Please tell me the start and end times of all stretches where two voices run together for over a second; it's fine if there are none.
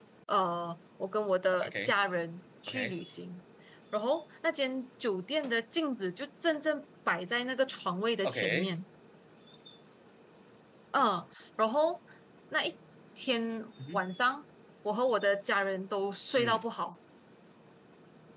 none

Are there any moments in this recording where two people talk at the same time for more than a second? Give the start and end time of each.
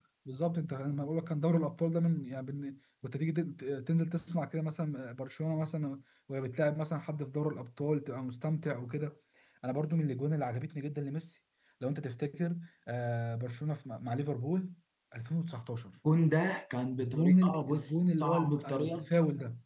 17.0-19.1

